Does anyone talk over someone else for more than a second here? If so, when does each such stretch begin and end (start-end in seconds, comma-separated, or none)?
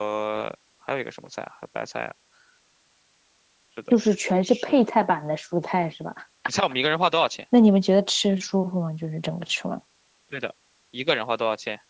none